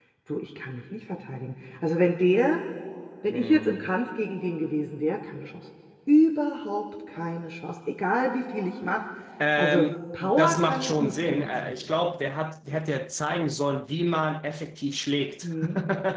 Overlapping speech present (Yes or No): Yes